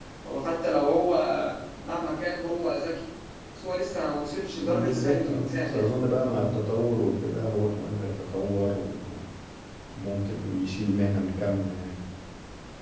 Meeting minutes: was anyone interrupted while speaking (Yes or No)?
Yes